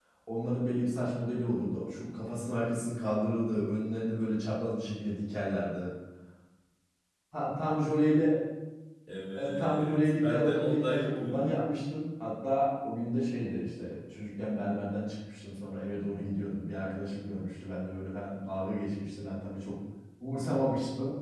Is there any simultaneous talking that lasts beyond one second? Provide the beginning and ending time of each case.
9.4-11.5

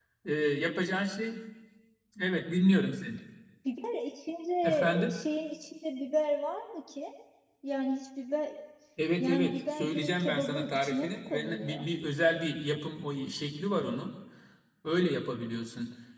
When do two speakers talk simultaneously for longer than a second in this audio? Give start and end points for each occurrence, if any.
9.2-11.9

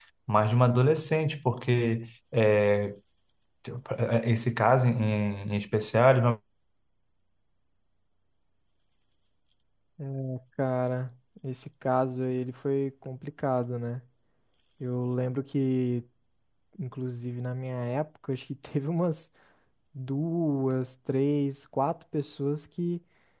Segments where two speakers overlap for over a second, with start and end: none

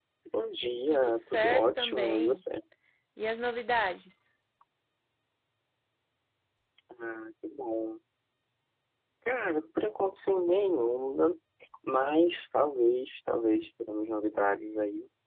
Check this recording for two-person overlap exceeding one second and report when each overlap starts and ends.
0.9-2.4

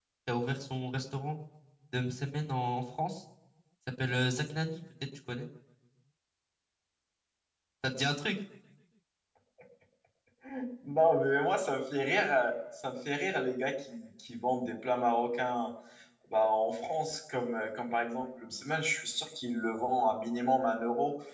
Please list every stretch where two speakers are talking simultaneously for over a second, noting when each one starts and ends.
none

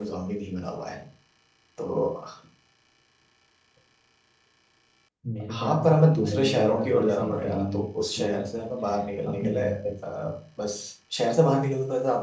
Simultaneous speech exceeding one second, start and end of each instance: 5.5-7.8

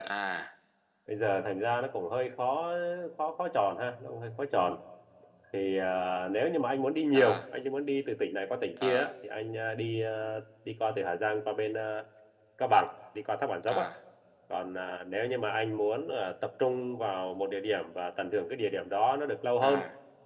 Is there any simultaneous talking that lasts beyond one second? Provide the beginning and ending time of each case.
none

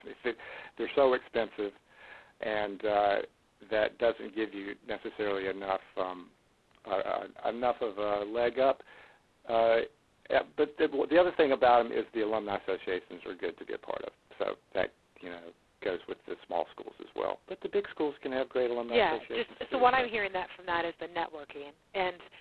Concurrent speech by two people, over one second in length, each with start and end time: 18.9-20.1

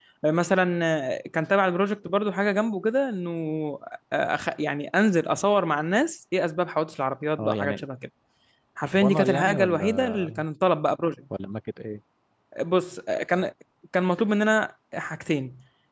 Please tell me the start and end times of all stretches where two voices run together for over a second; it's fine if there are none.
8.9-10.2

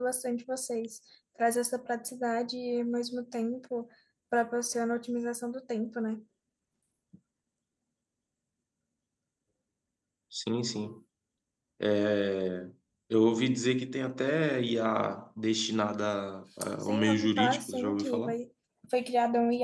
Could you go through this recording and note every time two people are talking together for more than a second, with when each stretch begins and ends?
16.8-18.4

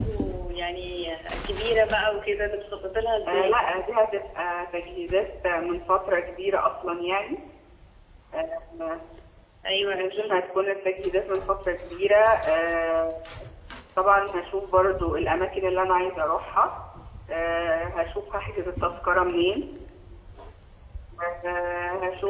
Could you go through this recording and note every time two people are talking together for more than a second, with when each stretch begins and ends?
none

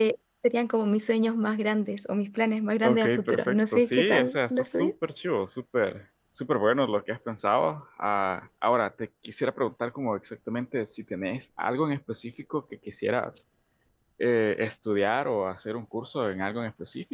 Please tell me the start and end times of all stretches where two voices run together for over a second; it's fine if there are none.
2.8-4.9

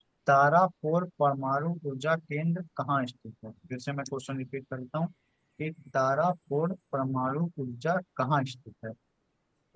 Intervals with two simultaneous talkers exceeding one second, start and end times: none

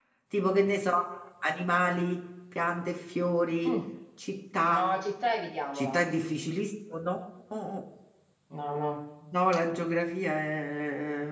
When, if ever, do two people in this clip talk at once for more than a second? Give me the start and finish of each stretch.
none

